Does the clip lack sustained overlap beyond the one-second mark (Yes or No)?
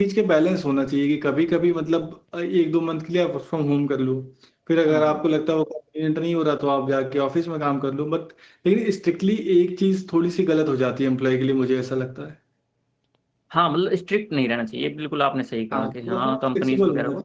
No